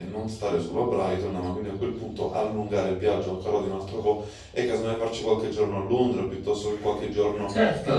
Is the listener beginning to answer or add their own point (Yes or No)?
Yes